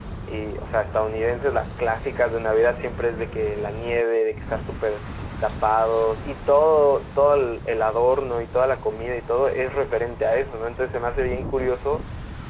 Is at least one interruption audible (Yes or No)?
No